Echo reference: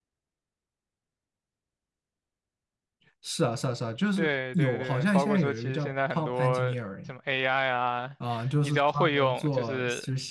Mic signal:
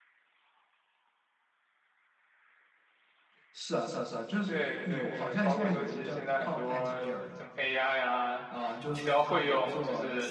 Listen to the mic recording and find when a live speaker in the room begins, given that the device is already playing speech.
none

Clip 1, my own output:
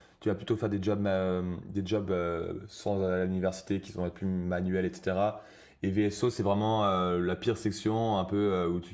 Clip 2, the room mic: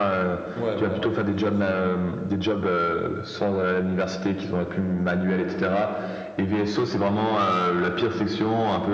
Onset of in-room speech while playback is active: 0.5 s

